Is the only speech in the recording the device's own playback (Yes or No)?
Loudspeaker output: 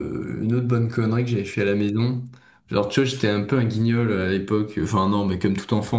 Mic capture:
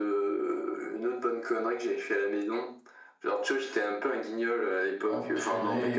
No